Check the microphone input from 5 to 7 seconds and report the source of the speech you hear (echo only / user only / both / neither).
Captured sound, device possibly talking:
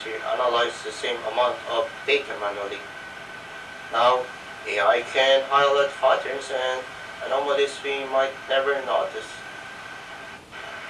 echo only